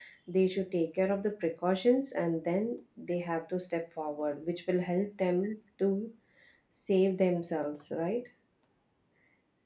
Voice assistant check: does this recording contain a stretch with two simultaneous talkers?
No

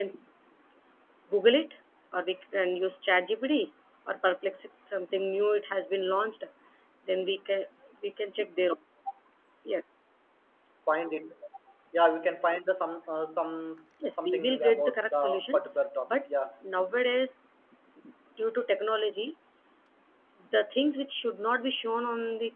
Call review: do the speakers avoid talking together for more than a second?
No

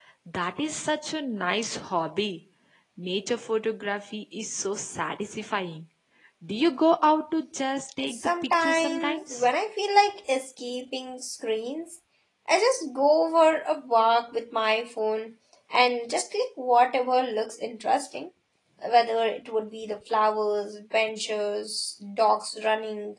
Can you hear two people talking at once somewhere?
Yes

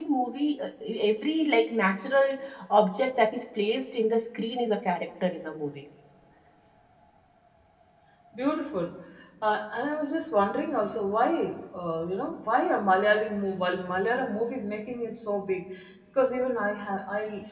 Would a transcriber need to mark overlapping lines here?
No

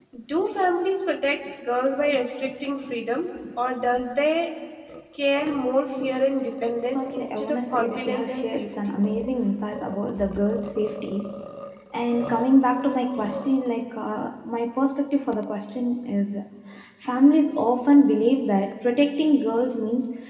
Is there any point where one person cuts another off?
Yes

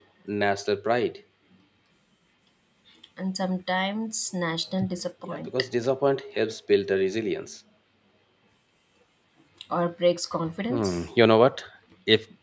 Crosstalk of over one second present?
No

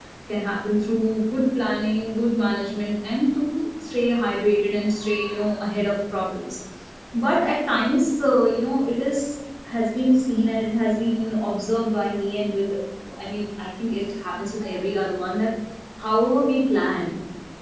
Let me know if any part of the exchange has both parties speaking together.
No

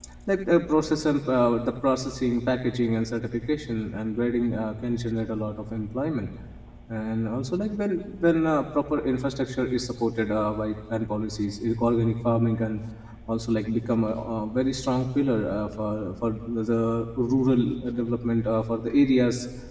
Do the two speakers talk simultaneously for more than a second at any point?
No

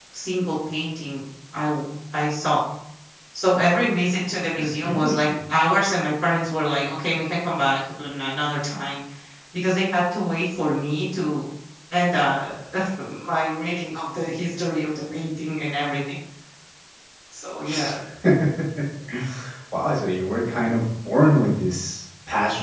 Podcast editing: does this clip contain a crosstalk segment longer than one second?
No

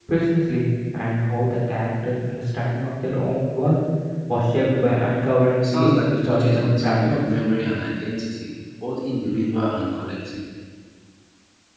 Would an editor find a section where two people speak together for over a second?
Yes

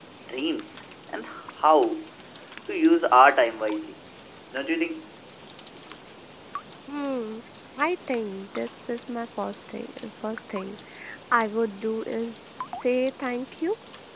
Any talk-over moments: No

